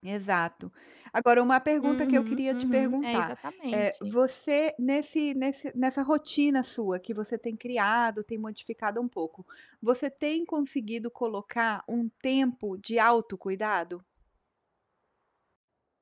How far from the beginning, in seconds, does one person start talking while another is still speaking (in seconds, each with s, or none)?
1.8 s